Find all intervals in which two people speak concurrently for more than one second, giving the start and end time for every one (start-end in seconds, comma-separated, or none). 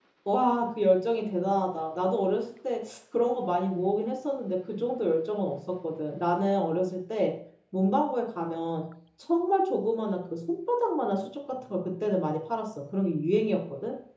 none